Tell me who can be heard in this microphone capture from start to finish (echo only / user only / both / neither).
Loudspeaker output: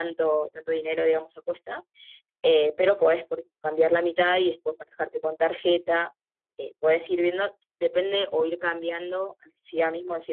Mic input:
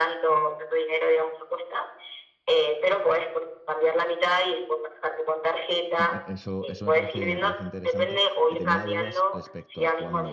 both